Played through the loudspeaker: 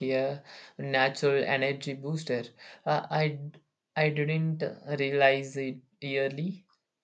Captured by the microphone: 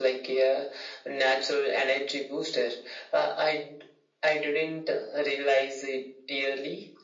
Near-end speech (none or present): none